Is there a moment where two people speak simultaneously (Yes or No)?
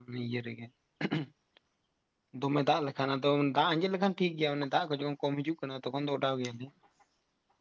No